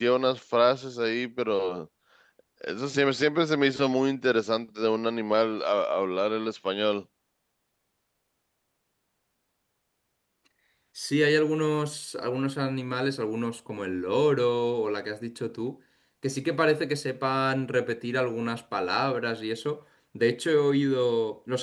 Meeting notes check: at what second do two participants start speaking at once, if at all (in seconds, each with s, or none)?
none